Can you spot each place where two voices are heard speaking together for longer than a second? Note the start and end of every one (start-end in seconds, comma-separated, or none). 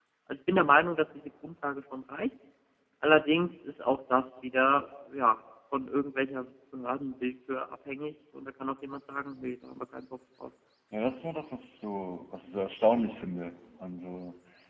none